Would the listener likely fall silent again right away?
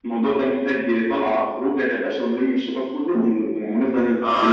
No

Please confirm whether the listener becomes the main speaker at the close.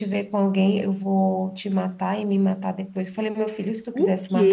No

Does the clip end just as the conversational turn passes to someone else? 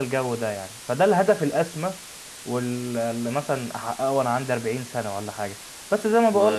No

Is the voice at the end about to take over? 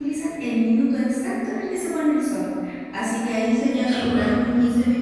No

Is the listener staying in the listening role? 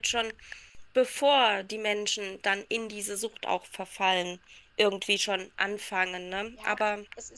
No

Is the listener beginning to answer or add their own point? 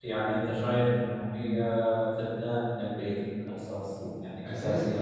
Yes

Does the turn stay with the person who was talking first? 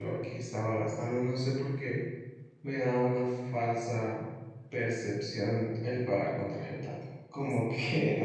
Yes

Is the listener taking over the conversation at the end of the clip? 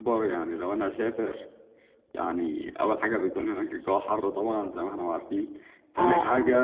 No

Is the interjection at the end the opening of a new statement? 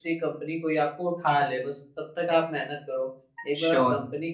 No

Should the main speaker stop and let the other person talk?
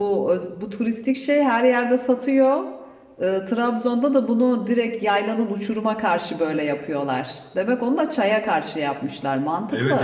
Yes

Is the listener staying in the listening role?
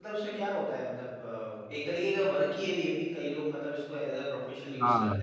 No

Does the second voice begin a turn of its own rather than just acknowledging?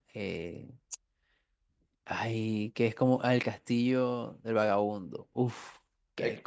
Yes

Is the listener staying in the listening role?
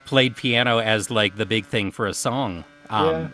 No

